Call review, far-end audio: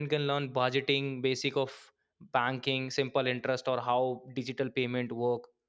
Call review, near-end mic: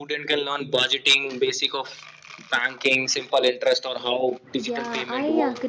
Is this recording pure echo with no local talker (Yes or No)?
No